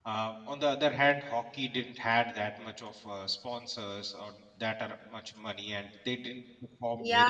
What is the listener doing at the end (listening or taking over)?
taking over